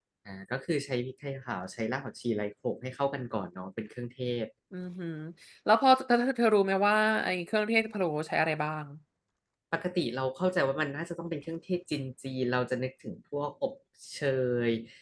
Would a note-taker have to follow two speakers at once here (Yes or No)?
No